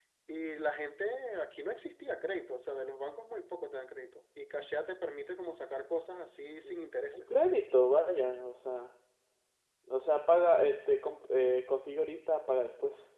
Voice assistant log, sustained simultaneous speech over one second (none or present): none